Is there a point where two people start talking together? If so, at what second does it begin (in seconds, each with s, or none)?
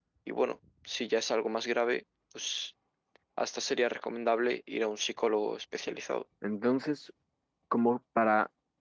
none